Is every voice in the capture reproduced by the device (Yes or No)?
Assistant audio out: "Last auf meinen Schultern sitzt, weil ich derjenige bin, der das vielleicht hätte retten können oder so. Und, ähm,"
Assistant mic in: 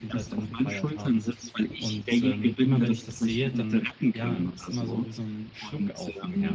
No